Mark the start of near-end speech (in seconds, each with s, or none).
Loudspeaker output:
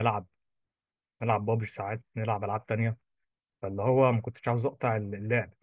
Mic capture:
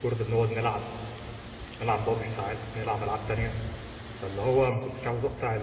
none